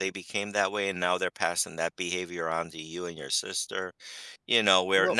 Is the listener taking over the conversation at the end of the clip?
No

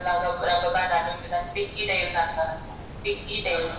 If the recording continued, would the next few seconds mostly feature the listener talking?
No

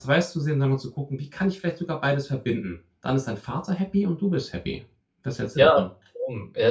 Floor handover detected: Yes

